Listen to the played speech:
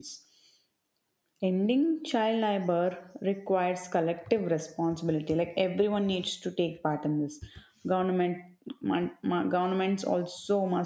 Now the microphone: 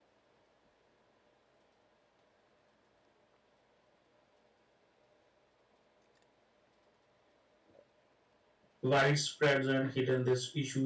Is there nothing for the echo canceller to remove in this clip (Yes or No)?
Yes